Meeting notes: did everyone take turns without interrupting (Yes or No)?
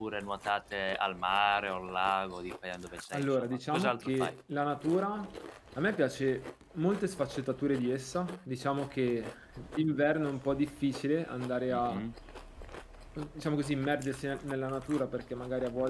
No